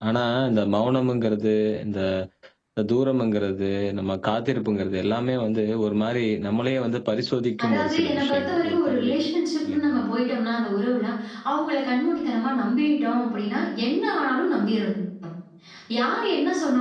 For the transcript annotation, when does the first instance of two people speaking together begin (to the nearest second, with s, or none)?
8 s